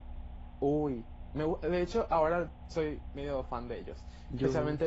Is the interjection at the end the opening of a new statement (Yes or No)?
No